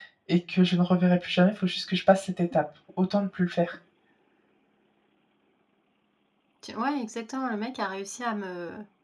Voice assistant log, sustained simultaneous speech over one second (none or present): none